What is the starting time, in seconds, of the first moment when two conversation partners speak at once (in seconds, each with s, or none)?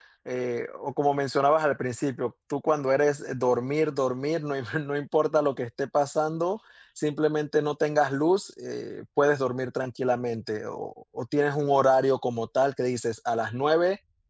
none